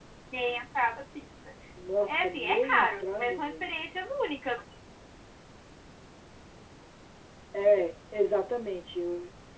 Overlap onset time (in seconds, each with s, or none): 2.1 s